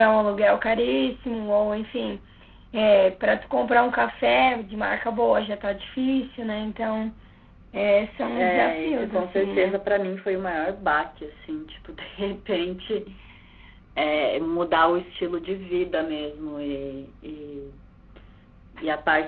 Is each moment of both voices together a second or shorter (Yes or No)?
No